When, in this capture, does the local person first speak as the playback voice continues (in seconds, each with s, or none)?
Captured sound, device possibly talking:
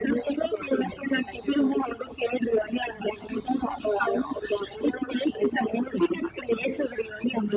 none